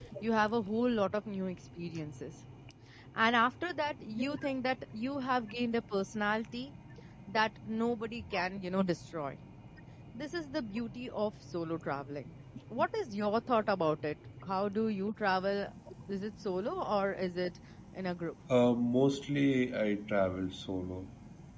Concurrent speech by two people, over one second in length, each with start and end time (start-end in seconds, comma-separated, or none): none